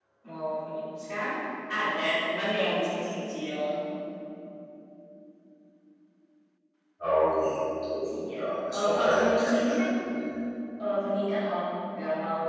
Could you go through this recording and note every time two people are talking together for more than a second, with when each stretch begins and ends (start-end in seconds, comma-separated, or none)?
8.3-9.8